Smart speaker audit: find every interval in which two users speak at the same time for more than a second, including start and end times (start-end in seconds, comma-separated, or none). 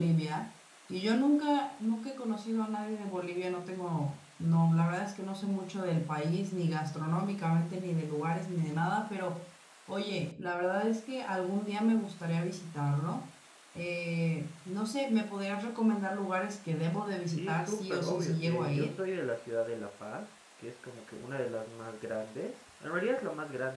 17.3-18.9